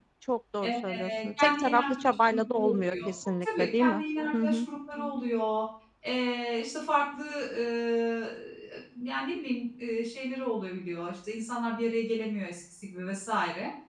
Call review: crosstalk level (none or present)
present